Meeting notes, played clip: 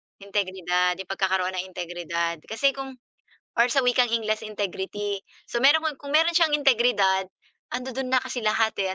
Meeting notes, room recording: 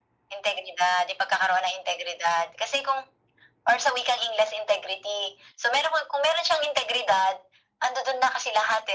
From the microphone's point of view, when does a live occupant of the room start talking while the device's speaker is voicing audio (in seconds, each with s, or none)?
none